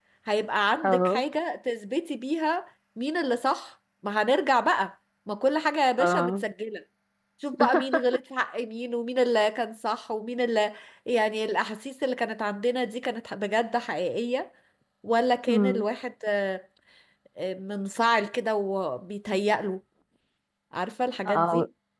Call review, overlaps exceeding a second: none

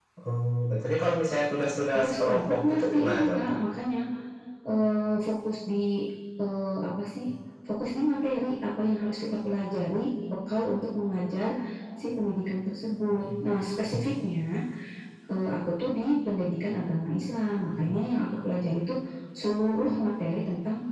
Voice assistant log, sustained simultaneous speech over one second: present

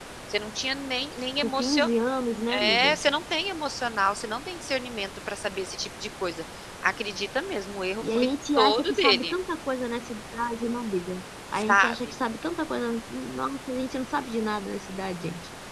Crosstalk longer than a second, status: present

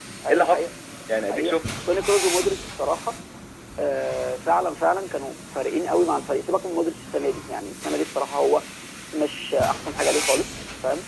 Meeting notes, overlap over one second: none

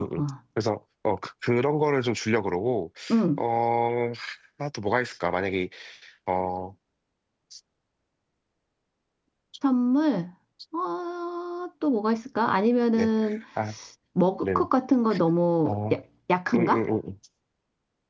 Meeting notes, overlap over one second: none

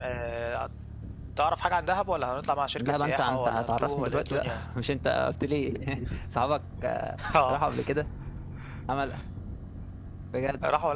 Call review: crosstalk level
present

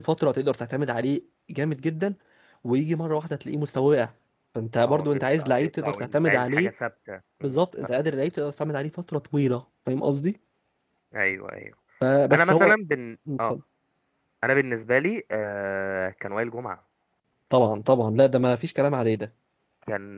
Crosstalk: present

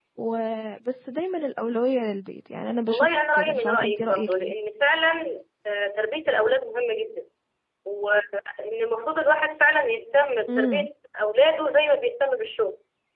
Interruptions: present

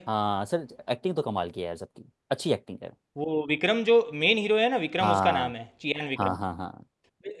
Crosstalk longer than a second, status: none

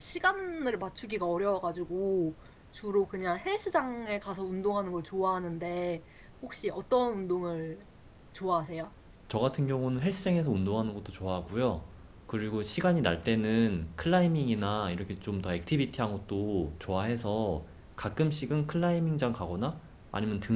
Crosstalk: none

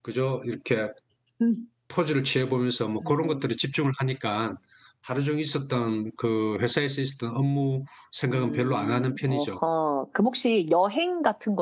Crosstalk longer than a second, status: present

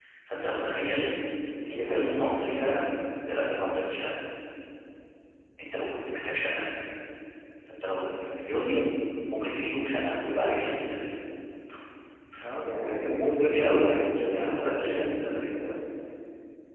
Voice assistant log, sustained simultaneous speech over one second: present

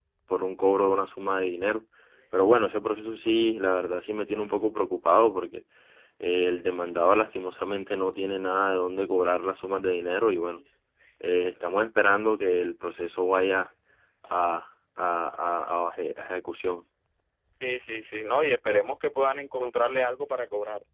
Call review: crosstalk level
none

